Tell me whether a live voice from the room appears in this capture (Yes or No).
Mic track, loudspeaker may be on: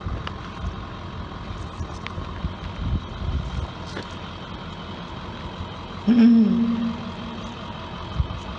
Yes